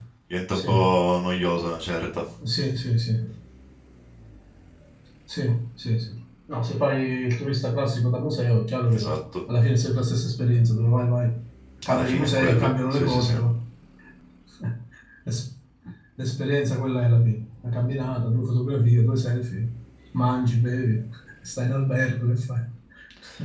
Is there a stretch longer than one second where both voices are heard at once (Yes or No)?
Yes